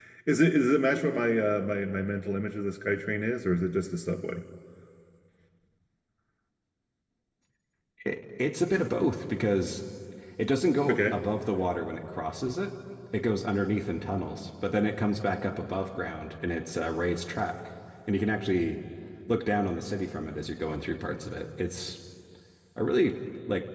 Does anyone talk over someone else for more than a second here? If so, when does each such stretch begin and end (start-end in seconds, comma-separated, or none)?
none